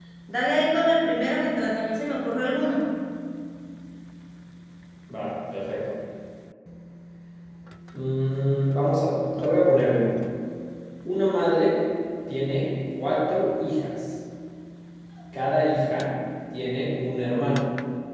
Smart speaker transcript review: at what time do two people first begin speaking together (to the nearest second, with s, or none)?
none